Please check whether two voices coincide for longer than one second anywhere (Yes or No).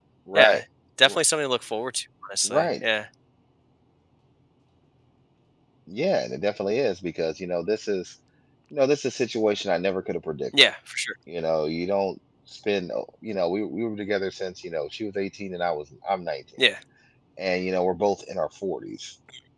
No